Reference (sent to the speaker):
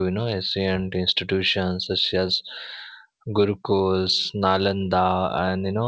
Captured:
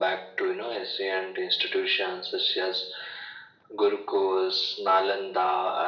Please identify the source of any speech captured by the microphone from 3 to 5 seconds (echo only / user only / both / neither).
echo only